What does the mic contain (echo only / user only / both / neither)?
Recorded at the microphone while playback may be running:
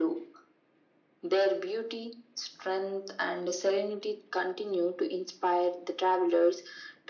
echo only